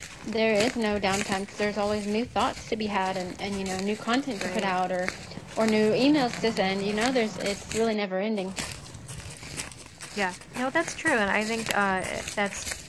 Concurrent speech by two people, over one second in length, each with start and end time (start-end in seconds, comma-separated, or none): none